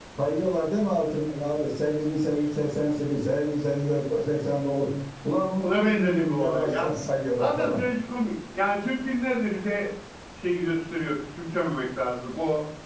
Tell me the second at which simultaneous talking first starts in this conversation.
5.6 s

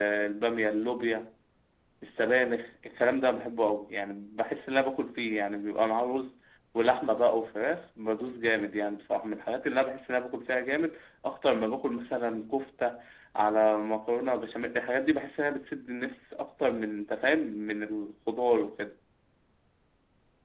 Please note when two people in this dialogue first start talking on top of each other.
none

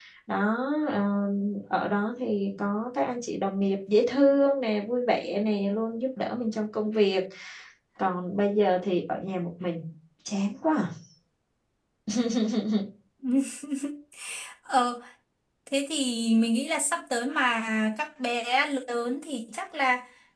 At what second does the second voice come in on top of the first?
none

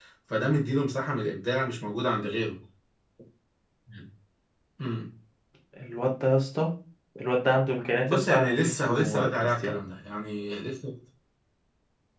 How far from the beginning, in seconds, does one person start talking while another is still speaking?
8.0 s

